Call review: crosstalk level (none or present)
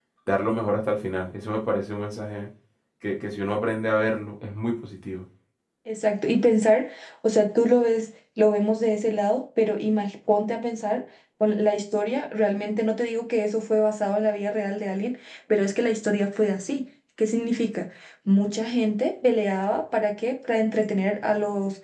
none